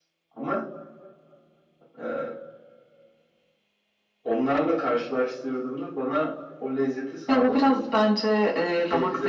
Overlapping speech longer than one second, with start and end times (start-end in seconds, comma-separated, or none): none